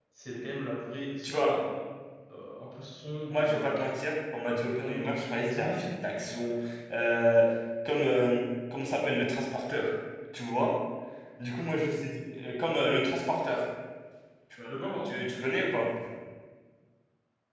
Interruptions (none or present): present